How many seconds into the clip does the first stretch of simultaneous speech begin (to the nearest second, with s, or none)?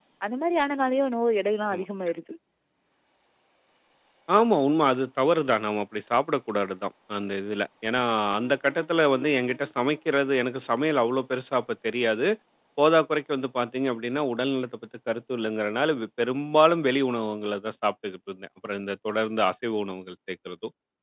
none